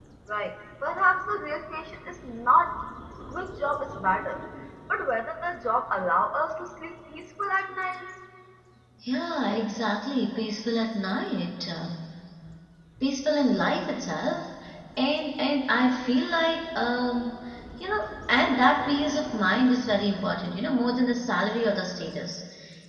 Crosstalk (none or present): none